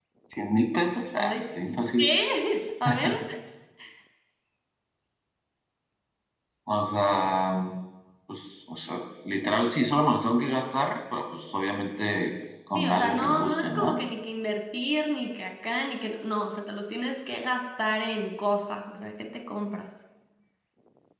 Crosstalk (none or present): present